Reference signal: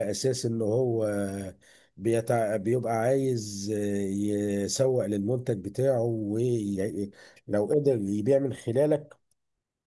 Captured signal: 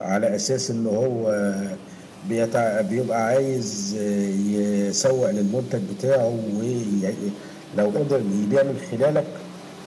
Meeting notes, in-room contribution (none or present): none